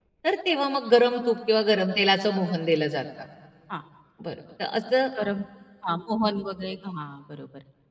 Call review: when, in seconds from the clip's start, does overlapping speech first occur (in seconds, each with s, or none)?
none